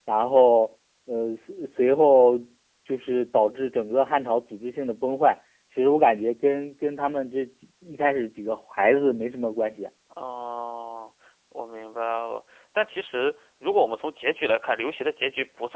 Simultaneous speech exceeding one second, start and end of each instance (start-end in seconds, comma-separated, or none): none